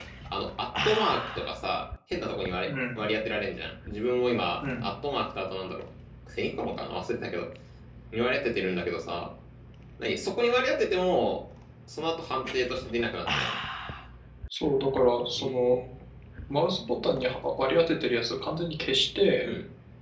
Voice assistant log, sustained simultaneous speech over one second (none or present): none